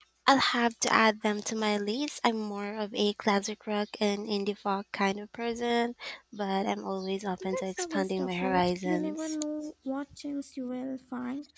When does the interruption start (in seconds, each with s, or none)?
7.4 s